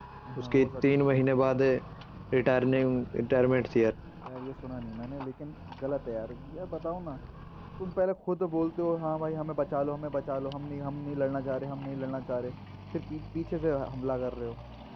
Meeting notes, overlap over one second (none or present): none